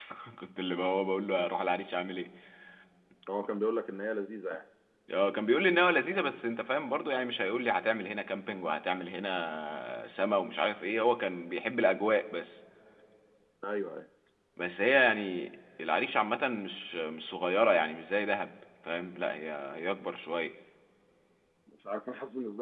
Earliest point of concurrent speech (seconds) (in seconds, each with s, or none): none